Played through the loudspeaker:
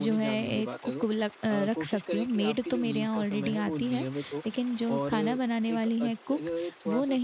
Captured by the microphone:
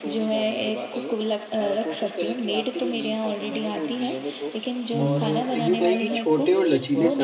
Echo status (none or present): present